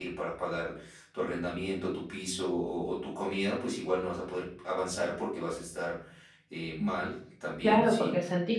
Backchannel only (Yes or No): No